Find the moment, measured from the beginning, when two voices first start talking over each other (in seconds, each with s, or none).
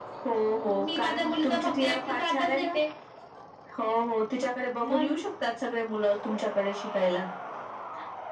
0.5 s